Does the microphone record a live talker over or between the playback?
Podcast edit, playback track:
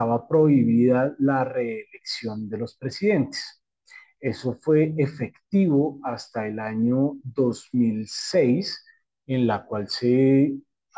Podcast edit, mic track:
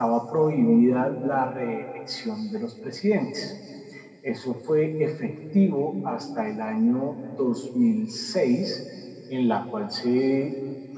No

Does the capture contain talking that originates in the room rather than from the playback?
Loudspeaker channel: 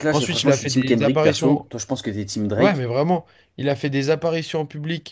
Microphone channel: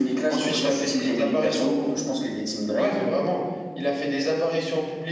No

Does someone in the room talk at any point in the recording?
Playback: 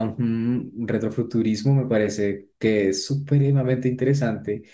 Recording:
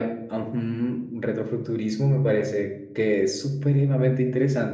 No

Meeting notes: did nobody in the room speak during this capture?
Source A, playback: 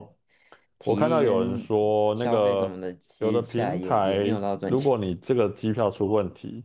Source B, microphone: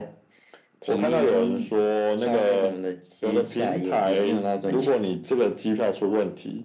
Yes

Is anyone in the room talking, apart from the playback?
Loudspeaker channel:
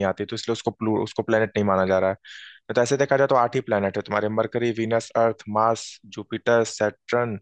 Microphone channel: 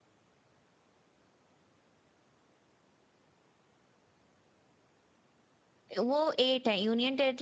Yes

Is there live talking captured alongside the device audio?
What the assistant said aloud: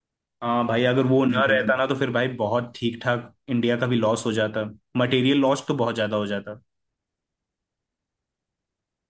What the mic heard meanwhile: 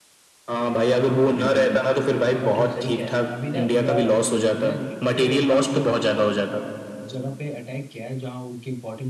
Yes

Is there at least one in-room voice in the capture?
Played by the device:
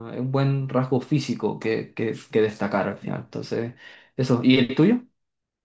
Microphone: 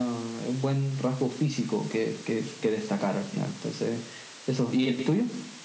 No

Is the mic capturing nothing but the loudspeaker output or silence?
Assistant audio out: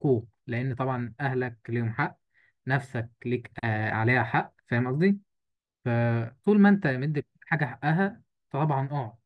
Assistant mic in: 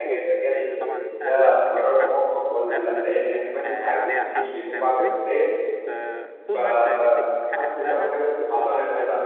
No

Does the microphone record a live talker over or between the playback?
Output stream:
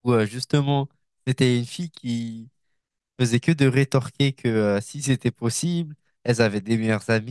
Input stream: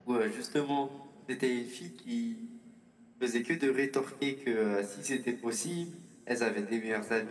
No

